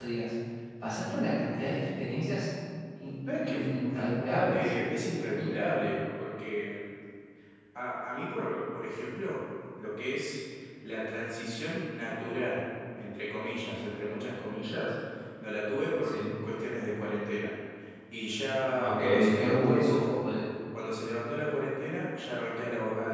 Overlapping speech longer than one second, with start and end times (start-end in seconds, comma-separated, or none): 18.8-20.2